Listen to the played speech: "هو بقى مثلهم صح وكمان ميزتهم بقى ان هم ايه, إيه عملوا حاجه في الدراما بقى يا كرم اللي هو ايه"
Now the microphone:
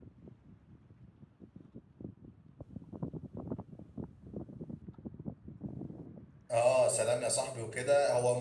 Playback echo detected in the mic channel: No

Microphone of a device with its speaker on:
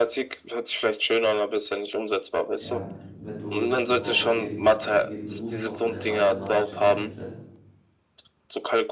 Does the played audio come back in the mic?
Yes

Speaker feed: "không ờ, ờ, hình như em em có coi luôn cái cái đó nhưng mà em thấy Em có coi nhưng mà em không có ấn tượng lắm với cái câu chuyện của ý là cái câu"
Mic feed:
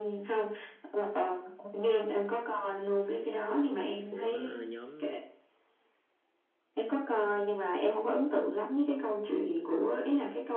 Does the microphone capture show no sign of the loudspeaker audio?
No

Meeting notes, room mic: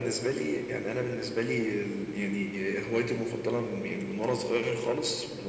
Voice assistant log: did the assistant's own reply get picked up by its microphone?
Yes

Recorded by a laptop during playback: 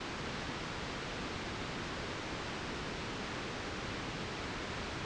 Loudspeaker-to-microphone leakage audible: No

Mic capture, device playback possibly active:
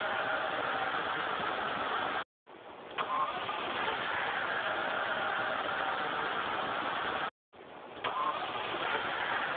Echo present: No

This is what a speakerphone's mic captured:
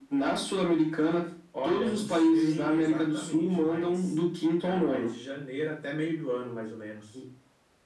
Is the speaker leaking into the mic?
Yes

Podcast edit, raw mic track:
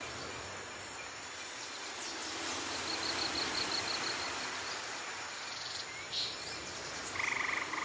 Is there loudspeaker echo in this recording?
No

